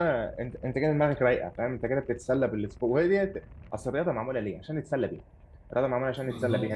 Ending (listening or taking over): listening